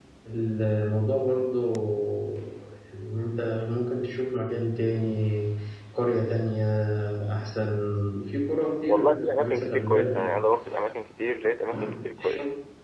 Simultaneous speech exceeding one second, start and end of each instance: 8.9-10.3

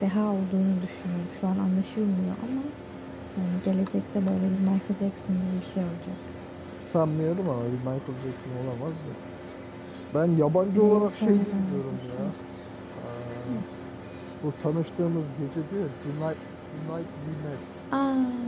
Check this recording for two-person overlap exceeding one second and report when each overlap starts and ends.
10.8-12.3

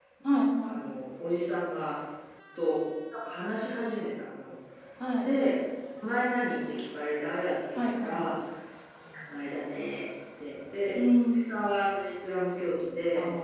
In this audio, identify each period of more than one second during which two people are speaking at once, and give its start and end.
none

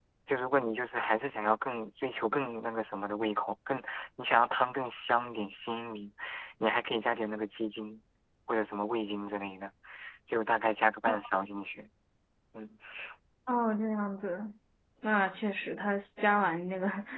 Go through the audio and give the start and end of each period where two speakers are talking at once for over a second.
none

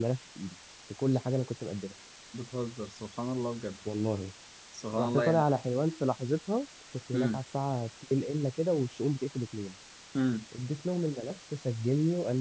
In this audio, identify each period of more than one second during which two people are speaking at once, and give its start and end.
none

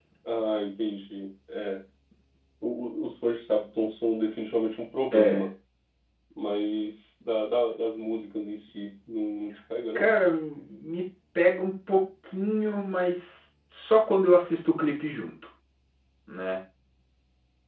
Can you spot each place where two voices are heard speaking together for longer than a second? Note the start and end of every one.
none

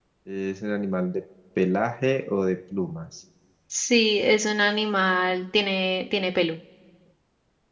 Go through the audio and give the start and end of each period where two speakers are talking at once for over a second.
none

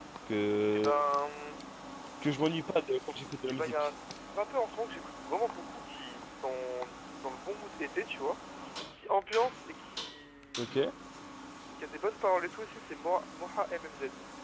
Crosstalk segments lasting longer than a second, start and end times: none

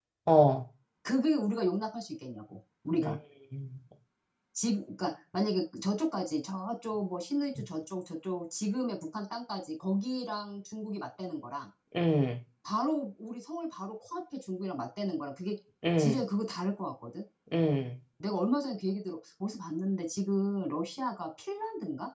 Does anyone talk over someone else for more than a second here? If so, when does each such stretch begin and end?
none

